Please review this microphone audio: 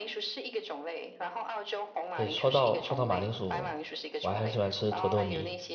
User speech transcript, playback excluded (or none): 对，说到说到马铃薯，我还很喜欢吃土豆泥。